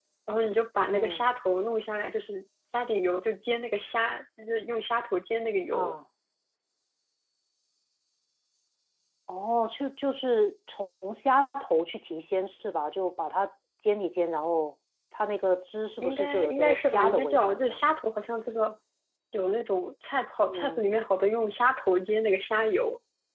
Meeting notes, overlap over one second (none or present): present